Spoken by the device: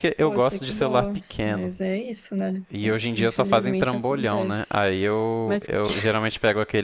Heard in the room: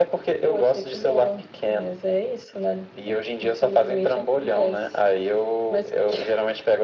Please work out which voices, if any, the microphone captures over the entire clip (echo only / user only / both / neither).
echo only